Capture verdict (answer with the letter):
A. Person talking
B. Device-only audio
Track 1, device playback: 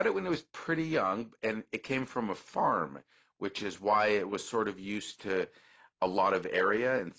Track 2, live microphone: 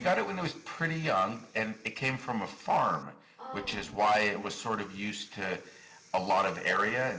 A